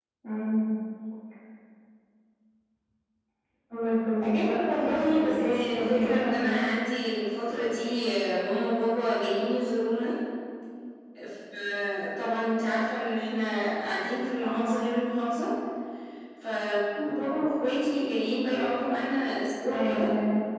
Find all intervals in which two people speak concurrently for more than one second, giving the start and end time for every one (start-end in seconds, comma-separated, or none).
4.2-6.6